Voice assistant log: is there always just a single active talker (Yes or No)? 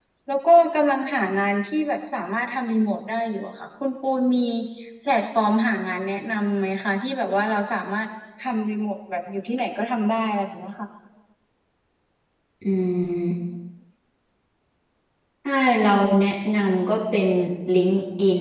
Yes